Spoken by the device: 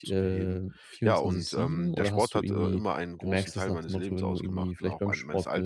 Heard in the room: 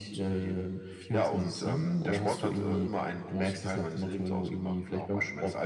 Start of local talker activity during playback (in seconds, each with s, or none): none